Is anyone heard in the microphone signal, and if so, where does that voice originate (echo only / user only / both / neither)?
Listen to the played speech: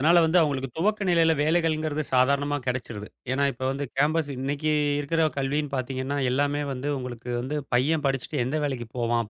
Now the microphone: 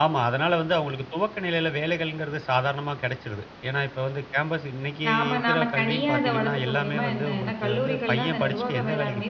both